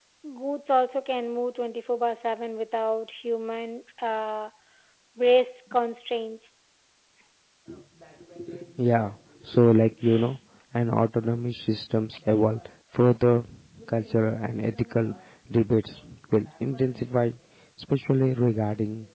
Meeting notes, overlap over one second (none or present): none